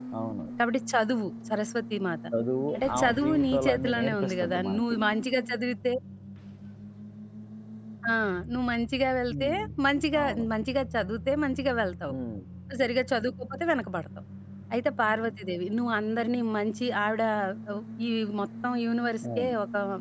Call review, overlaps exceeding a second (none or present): present